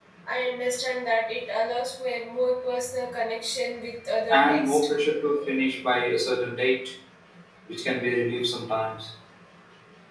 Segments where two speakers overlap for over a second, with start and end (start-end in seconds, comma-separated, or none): none